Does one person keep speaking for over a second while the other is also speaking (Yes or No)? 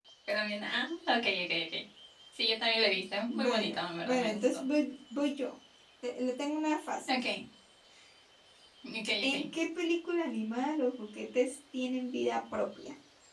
Yes